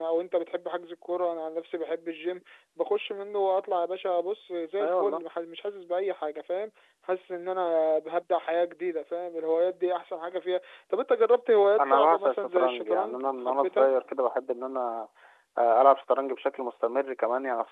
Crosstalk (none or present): present